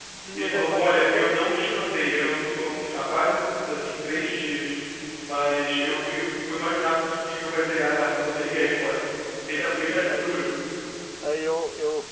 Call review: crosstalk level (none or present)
present